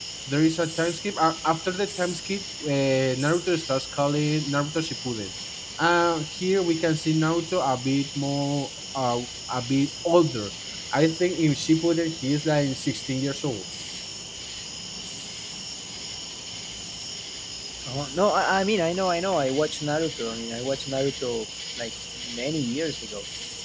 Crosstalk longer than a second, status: none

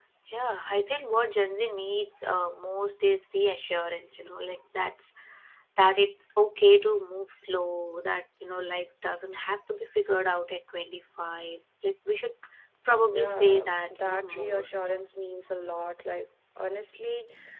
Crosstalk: present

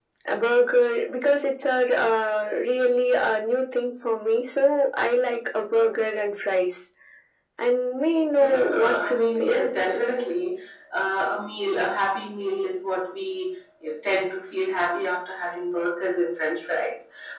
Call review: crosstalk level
present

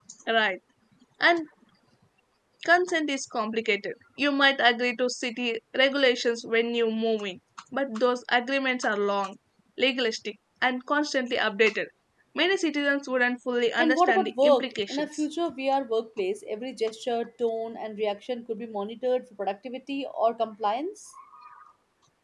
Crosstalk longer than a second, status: present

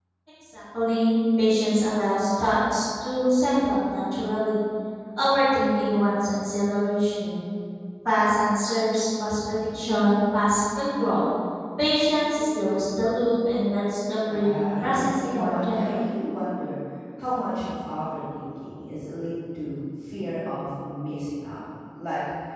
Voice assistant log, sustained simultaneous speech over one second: present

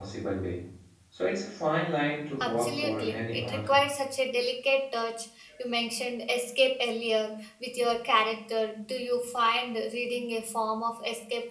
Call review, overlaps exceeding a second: present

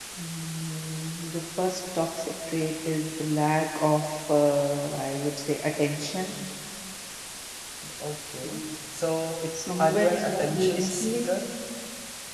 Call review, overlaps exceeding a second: present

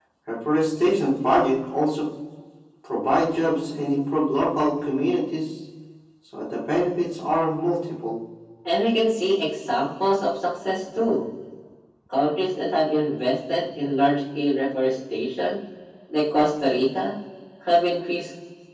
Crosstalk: none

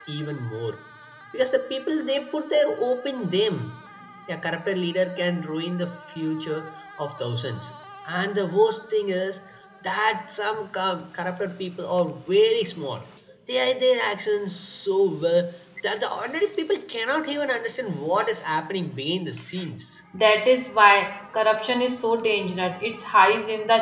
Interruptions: none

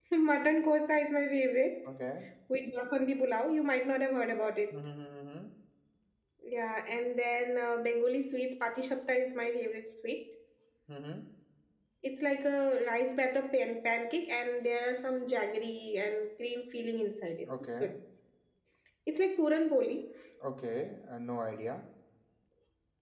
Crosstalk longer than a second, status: none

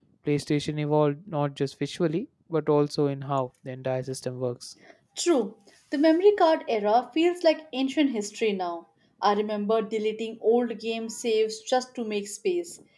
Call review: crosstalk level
none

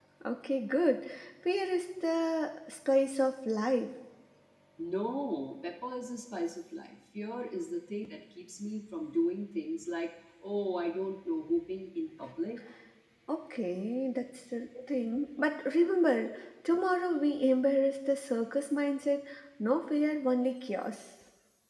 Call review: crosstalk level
none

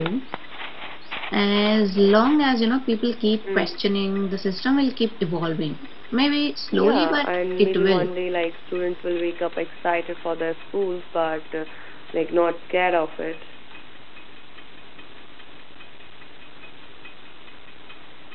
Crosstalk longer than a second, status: present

